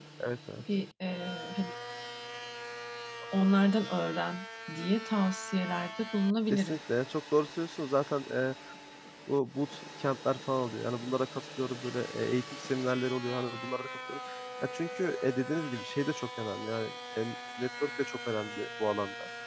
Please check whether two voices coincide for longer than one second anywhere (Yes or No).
No